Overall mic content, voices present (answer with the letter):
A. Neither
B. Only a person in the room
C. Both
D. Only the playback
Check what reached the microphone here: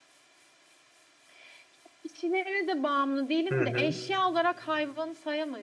C